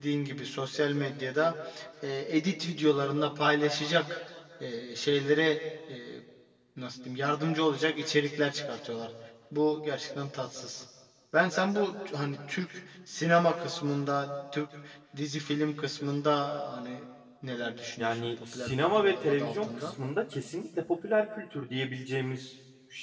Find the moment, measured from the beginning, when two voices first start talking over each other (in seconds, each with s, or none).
18.0 s